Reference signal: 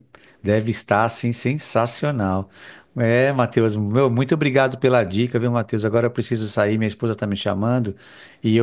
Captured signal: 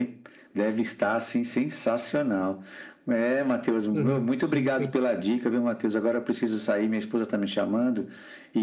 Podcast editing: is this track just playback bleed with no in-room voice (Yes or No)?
No